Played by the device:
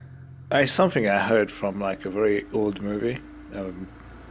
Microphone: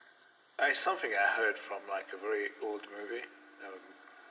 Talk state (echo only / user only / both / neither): echo only